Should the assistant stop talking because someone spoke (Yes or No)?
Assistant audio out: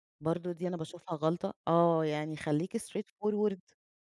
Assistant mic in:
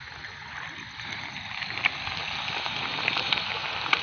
No